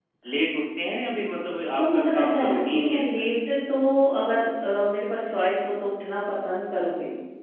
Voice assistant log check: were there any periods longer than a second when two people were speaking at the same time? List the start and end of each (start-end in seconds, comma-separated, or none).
1.8-3.3